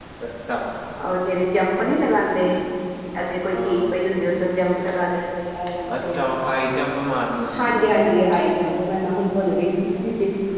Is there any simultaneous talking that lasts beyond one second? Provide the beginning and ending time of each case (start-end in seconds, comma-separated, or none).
none